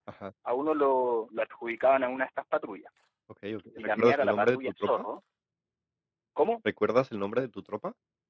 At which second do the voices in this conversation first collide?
3.8 s

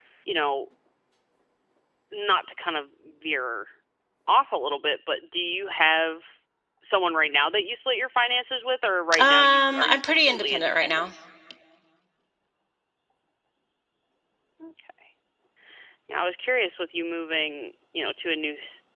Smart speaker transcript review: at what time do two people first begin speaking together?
9.1 s

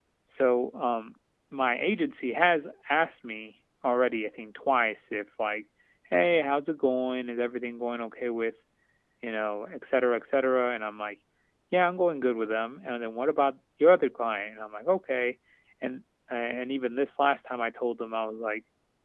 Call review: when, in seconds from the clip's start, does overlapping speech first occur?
none

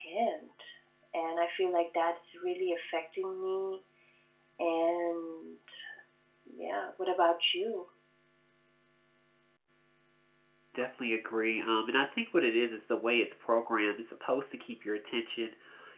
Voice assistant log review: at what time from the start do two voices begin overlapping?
none

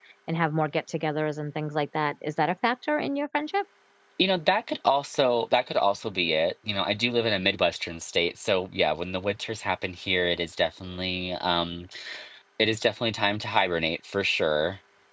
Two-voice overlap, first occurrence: none

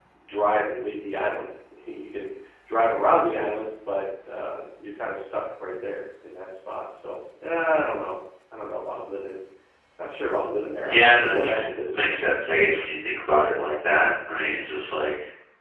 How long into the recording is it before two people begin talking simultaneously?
10.9 s

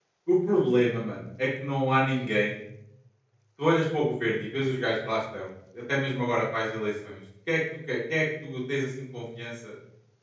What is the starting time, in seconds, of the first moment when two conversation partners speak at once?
none

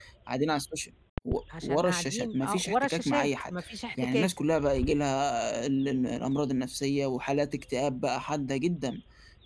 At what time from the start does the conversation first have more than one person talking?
1.6 s

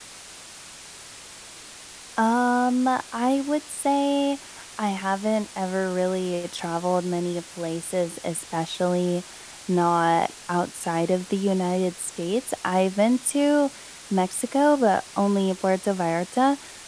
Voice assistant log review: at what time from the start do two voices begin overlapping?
none

